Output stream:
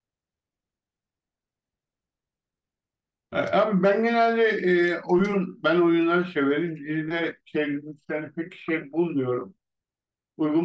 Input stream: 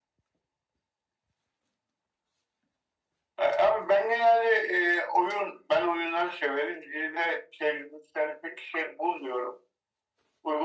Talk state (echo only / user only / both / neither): echo only